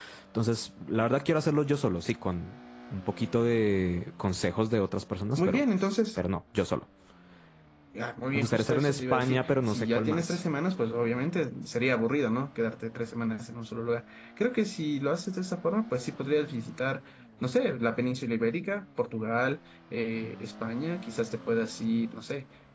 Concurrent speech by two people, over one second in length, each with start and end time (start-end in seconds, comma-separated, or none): 8.3-10.4